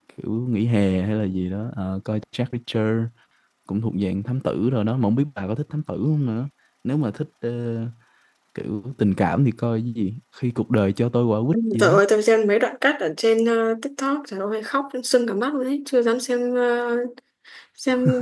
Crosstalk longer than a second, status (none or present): none